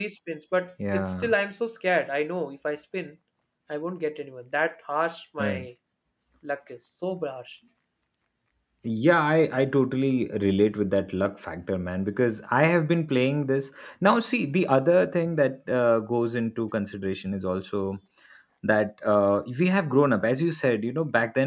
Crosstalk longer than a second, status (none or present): none